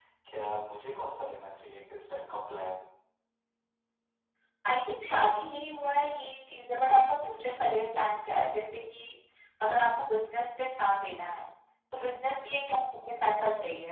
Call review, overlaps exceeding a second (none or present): none